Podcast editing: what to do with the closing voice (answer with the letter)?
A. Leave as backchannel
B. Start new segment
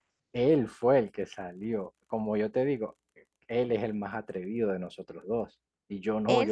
A